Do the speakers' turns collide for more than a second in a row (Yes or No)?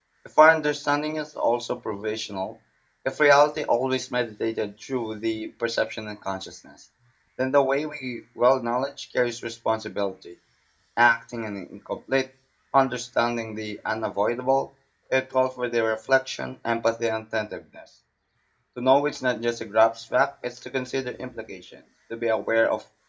No